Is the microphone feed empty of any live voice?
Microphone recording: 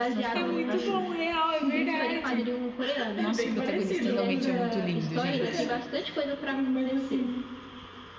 No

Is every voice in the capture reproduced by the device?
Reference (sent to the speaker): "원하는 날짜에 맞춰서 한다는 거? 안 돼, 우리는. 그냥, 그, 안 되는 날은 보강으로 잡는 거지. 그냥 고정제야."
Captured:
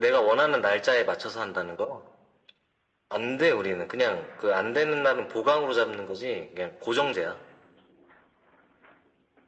Yes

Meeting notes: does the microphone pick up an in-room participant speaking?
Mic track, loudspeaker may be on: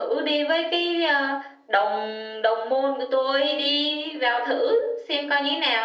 No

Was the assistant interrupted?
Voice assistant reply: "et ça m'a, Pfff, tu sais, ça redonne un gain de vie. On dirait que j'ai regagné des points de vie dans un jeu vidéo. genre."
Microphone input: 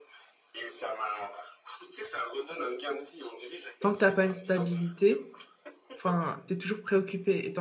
Yes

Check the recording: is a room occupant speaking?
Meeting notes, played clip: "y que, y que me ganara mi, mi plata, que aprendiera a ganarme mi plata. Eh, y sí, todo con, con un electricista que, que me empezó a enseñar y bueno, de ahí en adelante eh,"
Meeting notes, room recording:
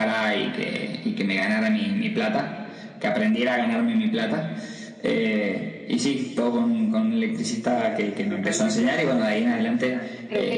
Yes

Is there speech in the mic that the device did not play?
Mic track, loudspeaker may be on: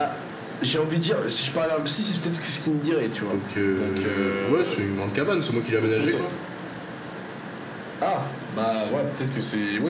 Yes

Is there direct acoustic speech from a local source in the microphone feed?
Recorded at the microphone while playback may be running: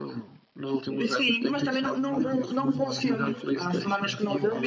Yes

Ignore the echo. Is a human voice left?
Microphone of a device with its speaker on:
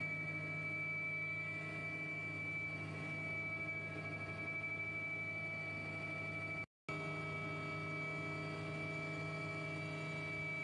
No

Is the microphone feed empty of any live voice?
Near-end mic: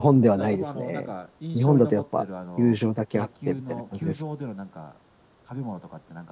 No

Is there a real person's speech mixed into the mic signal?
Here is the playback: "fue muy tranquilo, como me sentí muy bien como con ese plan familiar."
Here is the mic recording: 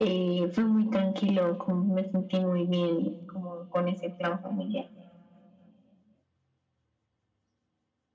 No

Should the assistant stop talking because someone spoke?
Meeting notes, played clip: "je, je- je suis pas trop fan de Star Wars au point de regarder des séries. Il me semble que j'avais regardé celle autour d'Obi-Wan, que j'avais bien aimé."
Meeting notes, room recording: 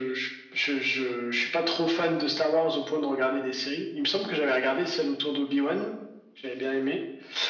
No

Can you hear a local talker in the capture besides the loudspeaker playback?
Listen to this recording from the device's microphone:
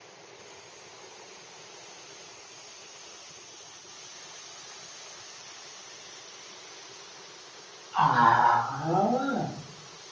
Yes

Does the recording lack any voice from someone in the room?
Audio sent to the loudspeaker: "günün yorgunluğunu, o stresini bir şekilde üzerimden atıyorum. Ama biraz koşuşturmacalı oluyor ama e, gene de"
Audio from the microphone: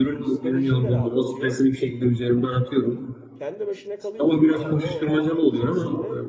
No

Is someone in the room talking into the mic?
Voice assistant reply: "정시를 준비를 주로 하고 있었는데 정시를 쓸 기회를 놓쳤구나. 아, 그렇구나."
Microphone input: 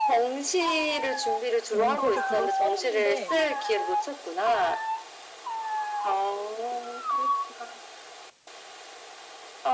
Yes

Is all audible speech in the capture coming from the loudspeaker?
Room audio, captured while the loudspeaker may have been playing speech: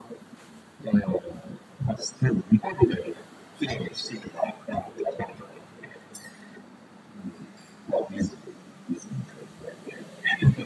Yes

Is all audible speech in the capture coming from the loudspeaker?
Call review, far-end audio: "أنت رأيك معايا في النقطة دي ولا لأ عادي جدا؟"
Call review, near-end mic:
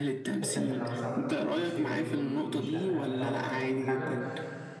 No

